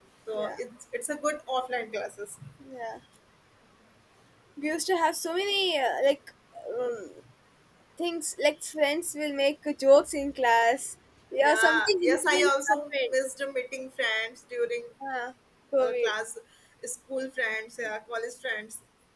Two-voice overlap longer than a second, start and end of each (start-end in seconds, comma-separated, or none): 11.4-13.1